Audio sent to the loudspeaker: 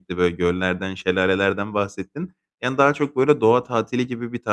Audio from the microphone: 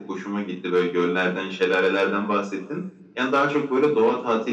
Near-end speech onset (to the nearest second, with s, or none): none